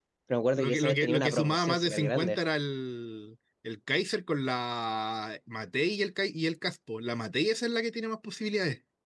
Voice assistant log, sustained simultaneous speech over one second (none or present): present